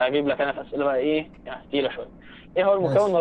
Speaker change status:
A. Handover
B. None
B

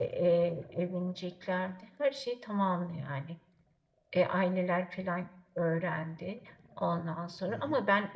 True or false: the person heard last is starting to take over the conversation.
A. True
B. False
B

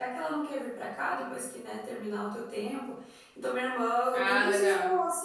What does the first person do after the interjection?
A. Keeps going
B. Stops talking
A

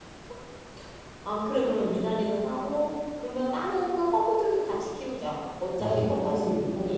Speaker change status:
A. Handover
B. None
A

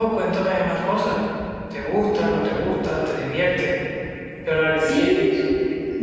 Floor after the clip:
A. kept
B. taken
B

